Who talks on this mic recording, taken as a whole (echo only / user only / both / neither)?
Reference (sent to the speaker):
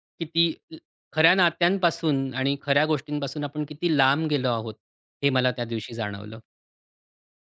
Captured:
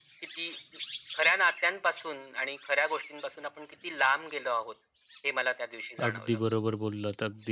both